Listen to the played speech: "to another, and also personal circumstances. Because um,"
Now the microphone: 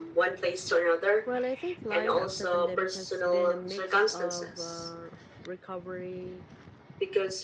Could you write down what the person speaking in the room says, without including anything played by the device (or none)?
Well, I think life after pandemic has been a mix of uh, recovery